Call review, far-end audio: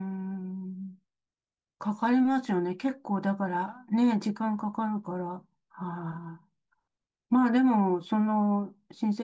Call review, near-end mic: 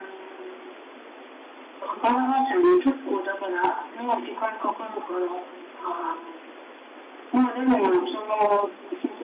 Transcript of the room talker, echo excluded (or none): 宮崎、